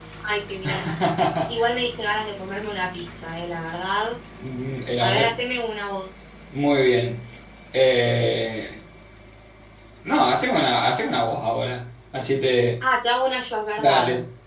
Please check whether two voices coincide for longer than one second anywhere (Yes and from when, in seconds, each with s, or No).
No